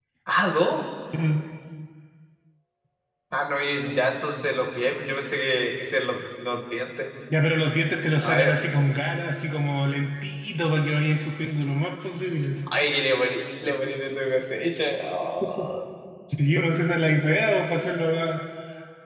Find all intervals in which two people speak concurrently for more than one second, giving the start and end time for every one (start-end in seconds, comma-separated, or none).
none